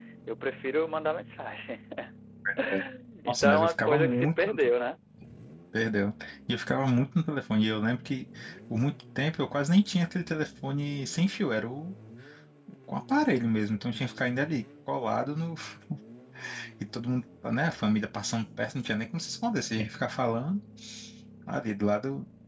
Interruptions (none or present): present